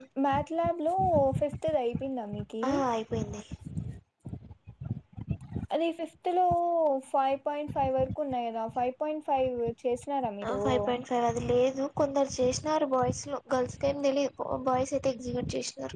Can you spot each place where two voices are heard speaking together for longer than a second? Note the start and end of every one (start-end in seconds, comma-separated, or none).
none